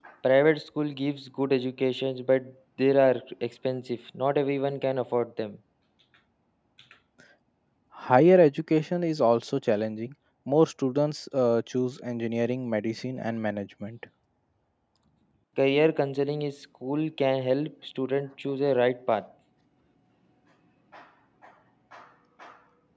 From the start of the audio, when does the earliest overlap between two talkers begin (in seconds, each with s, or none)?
none